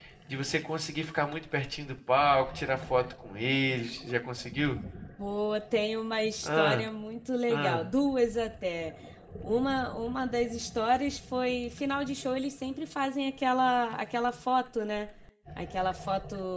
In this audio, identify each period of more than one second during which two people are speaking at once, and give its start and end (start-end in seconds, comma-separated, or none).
none